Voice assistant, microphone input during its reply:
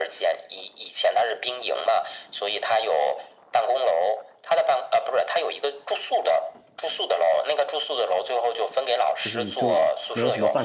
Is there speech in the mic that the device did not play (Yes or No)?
Yes